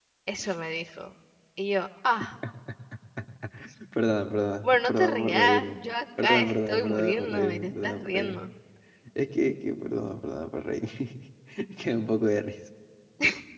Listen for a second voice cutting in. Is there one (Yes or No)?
Yes